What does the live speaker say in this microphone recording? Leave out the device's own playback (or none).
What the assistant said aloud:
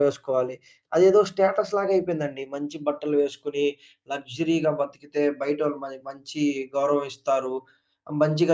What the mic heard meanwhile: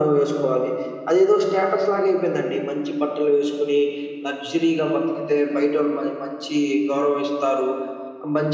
none